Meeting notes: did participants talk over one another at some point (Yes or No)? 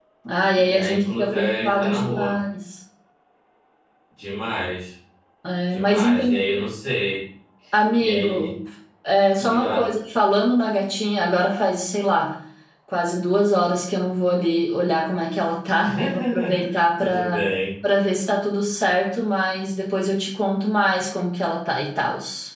Yes